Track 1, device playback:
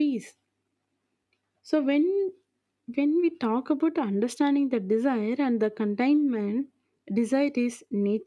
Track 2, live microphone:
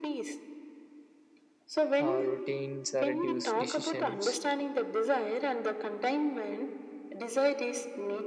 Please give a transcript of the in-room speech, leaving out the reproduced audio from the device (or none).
uh, routines uh, reduce decisions